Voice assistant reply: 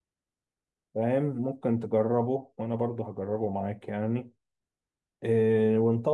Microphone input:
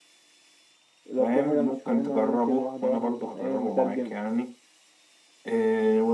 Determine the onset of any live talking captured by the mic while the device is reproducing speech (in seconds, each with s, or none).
1.1 s